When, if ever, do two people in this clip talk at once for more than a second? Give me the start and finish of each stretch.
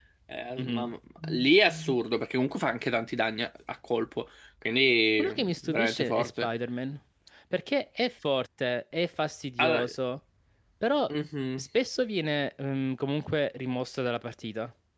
5.2-6.5

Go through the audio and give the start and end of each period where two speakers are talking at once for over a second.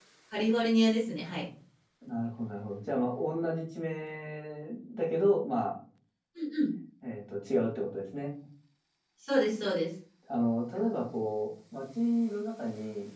none

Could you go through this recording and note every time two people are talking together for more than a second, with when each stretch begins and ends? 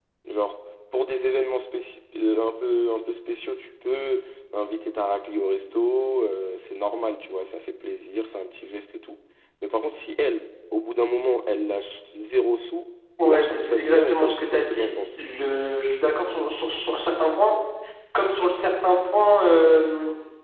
13.2-15.2

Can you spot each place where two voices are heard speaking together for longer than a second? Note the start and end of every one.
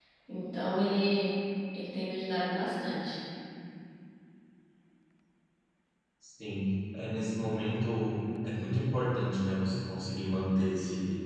none

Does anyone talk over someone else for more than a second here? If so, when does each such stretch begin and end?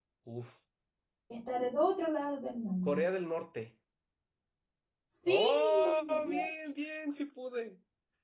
5.3-6.5

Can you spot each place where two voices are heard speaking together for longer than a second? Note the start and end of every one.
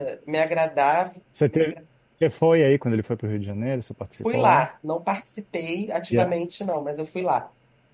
none

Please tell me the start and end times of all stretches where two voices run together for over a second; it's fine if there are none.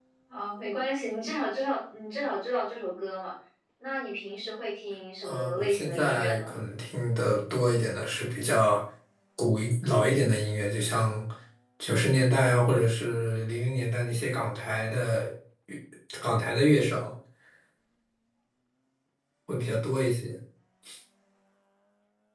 5.2-6.6

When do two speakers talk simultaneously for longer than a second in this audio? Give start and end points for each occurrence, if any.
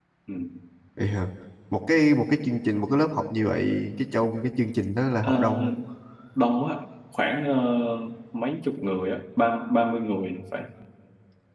none

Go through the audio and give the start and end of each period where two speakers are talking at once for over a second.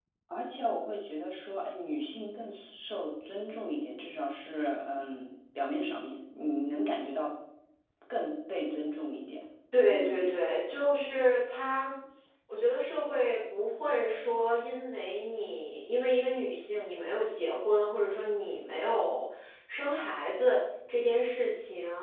none

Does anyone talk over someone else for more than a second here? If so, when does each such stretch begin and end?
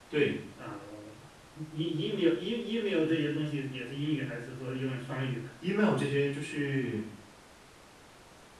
none

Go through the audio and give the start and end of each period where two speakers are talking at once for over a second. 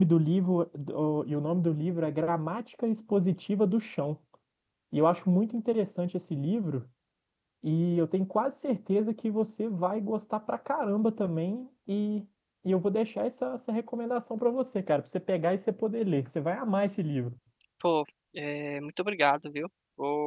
none

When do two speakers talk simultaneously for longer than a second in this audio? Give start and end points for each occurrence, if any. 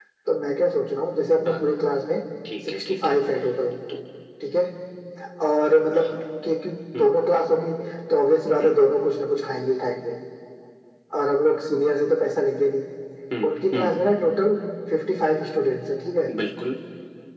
none

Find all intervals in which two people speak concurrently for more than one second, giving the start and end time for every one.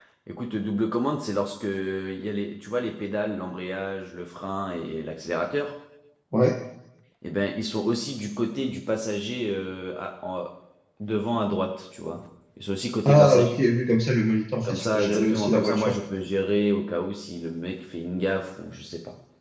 14.6-15.9

